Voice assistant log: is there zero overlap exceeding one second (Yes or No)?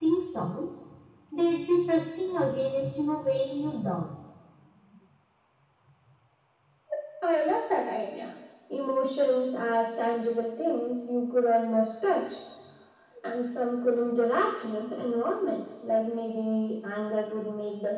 Yes